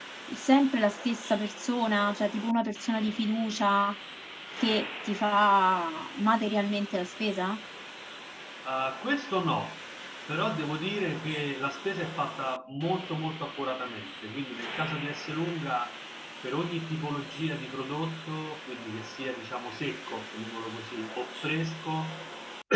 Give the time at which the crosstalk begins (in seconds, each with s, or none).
none